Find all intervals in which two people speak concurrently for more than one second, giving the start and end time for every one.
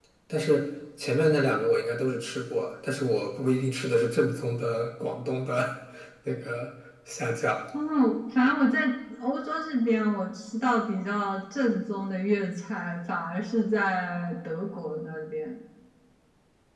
none

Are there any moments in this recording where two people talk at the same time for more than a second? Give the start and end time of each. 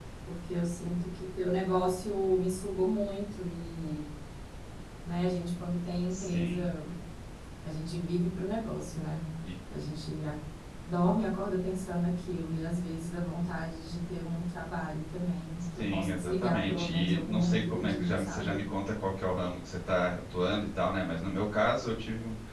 15.8-18.6

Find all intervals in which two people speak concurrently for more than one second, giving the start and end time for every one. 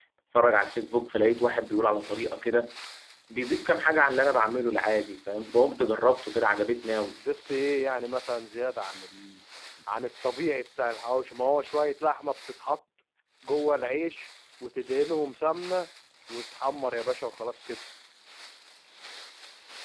none

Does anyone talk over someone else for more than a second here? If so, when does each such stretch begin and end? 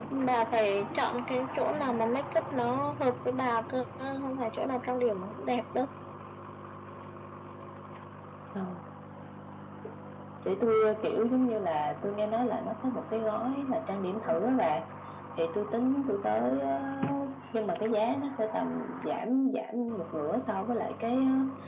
none

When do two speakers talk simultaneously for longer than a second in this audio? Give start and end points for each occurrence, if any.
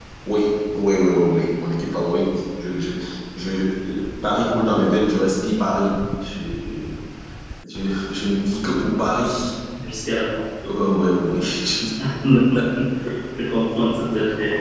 none

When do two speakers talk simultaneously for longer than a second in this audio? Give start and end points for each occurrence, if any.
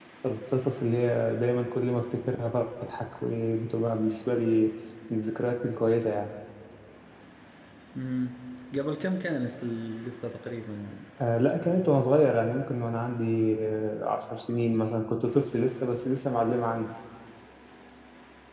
none

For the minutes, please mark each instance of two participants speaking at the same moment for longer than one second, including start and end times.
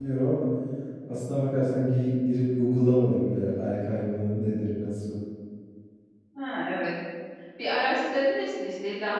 none

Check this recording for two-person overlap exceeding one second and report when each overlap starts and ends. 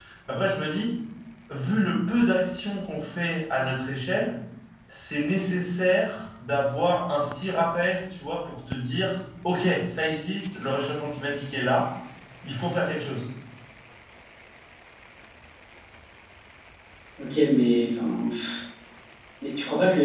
none

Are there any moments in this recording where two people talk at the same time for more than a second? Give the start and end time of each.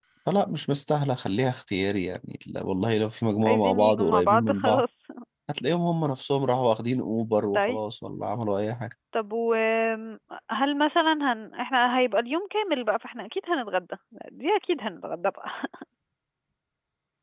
3.4-4.8

